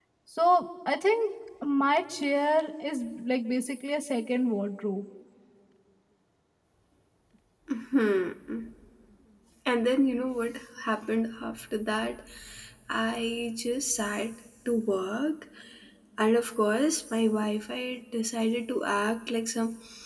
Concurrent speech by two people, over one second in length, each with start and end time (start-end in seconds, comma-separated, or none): none